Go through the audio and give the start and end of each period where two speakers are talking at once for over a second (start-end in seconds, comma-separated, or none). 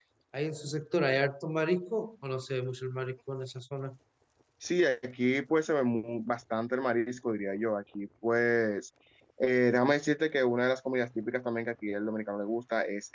none